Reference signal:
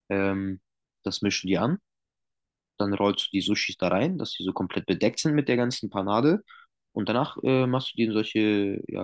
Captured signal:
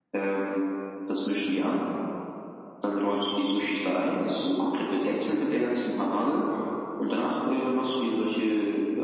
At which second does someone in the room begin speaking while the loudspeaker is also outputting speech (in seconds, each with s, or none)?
none